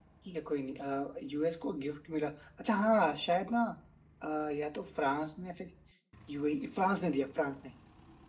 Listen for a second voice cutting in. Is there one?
No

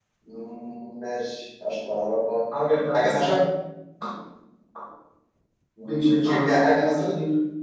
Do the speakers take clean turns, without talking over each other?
No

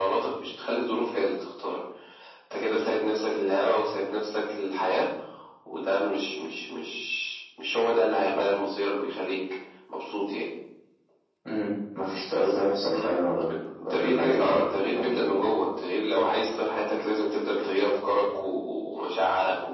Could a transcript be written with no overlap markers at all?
No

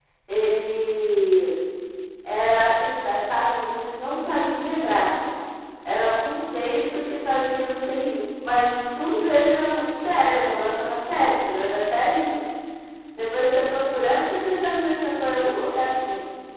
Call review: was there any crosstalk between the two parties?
No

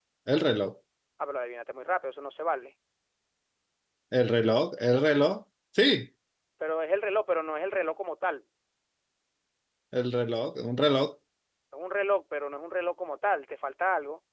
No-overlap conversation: Yes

